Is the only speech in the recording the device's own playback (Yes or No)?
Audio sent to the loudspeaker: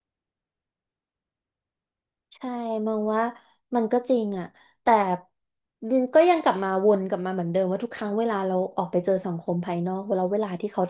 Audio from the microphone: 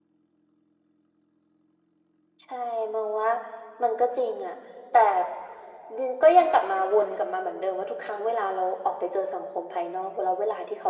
Yes